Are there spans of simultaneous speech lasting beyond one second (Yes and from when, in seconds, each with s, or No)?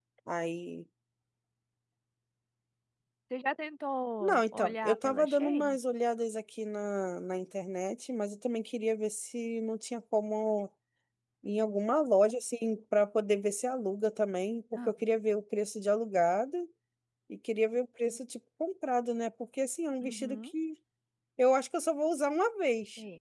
Yes, from 4.2 s